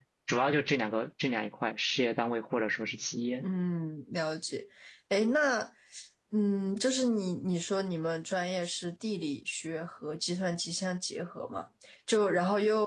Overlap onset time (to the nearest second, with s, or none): none